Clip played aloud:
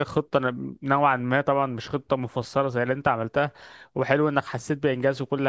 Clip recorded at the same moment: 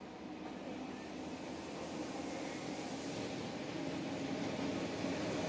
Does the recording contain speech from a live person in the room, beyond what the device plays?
No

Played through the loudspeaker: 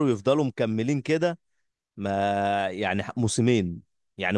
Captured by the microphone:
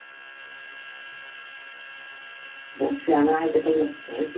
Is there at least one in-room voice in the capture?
Yes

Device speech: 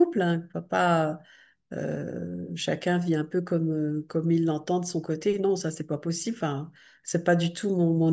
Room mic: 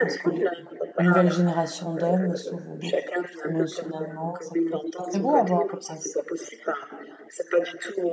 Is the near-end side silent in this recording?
No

